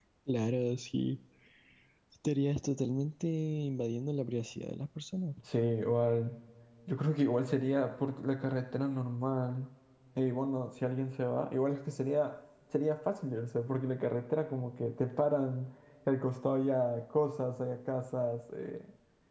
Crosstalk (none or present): none